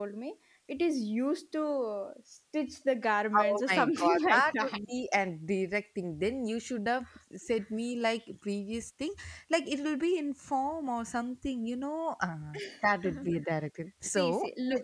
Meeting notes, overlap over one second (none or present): present